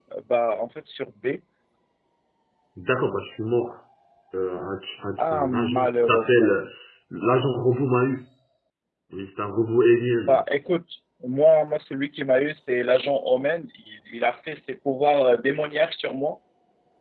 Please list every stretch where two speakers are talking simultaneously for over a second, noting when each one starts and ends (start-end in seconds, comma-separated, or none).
5.2-6.7